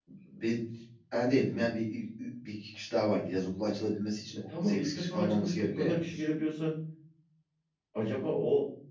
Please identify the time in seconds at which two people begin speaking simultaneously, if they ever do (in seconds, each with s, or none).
4.6 s